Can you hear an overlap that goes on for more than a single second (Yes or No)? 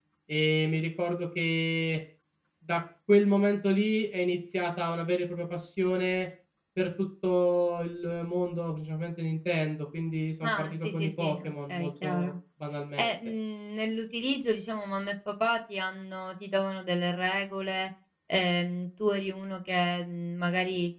Yes